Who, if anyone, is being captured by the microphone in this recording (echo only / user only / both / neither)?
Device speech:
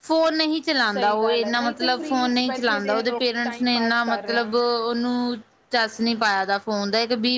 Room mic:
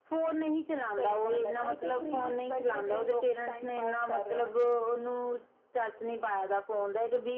echo only